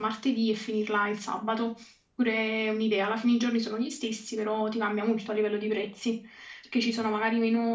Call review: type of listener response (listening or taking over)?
listening